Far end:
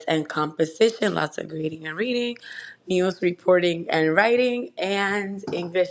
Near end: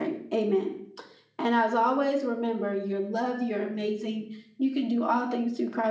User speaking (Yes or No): Yes